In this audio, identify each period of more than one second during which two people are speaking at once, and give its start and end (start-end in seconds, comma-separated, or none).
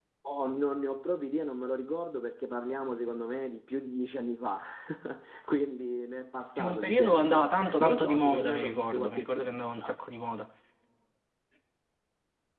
6.6-9.9